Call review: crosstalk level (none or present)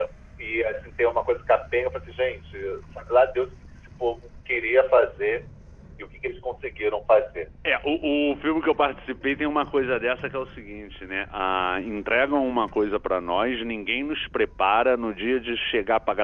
none